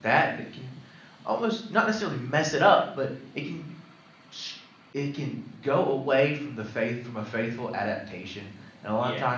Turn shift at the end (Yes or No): No